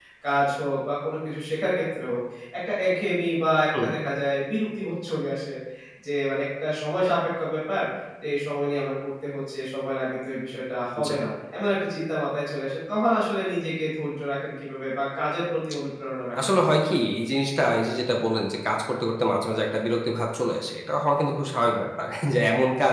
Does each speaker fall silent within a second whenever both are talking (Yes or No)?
Yes